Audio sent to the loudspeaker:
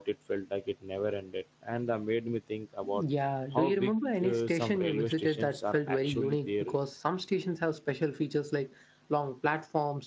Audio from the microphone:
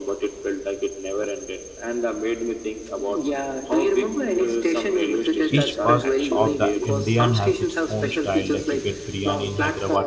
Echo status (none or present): present